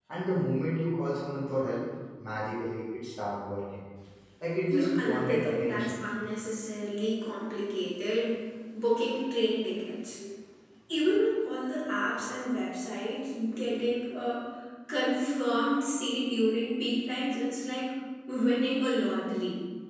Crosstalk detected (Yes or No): Yes